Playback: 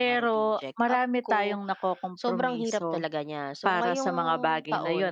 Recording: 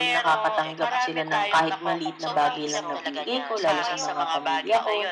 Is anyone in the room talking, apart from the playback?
Yes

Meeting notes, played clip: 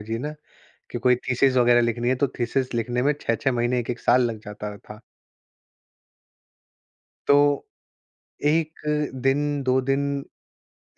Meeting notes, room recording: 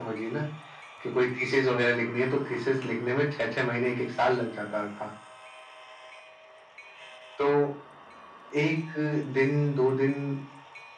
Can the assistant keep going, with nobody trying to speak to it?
Yes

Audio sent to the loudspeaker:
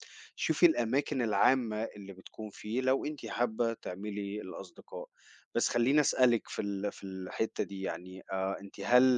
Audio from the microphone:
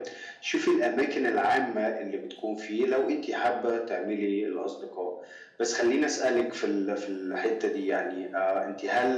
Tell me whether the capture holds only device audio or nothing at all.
Yes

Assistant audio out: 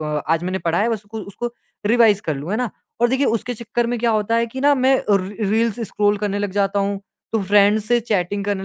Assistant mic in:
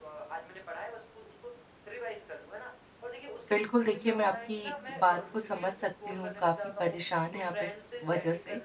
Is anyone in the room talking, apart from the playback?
Yes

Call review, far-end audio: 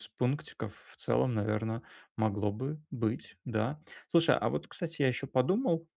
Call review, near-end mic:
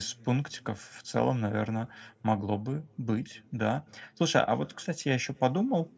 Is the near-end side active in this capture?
No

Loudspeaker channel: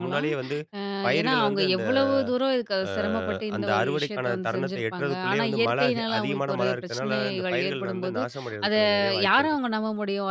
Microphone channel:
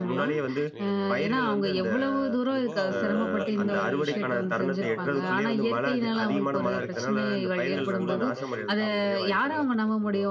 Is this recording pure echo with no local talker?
No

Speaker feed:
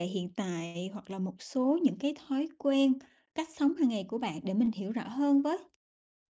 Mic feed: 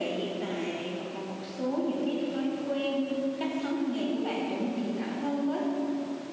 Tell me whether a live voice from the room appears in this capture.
No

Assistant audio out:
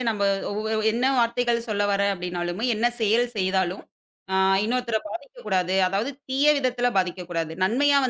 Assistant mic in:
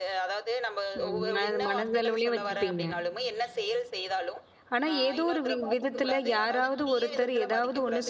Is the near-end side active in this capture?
Yes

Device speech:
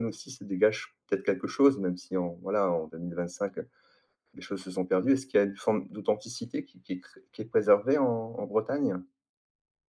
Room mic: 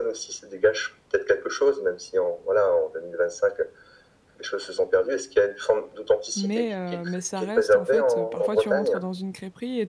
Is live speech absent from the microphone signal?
No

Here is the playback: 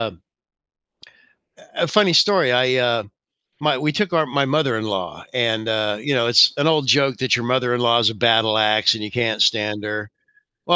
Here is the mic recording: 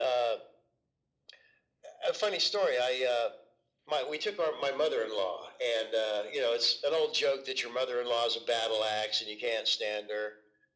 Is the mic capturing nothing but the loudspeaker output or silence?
Yes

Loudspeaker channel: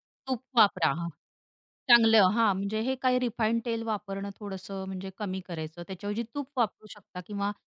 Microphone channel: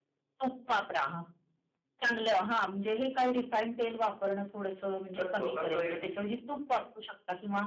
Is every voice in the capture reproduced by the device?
No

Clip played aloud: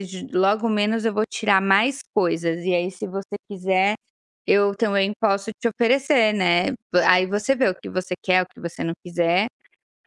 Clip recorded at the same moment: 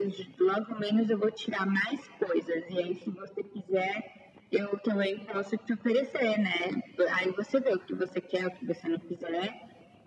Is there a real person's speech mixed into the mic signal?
No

